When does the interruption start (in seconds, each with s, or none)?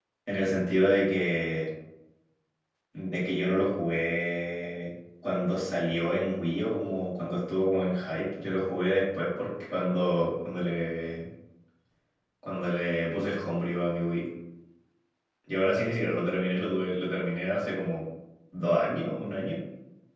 none